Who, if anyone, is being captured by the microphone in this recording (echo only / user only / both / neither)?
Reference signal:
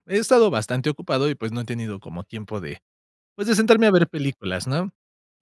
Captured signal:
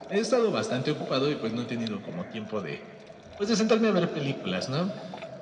echo only